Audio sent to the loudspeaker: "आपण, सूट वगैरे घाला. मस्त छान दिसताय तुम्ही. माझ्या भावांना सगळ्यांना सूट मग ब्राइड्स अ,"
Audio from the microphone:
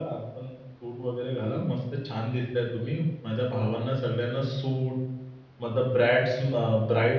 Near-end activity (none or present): none